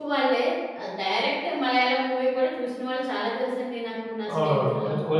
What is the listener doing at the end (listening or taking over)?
taking over